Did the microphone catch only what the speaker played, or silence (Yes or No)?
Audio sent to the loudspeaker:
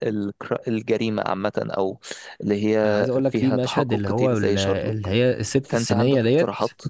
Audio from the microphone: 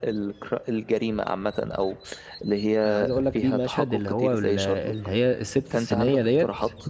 Yes